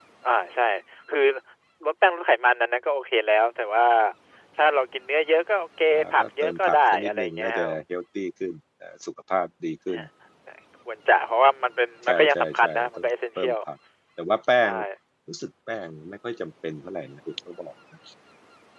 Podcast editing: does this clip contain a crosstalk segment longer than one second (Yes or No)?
Yes